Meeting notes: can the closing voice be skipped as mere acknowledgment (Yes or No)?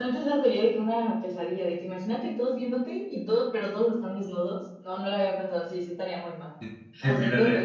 No